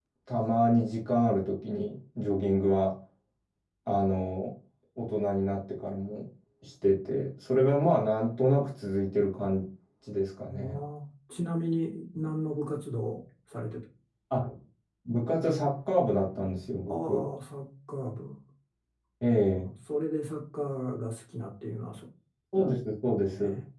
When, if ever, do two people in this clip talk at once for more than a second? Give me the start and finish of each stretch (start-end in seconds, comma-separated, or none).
none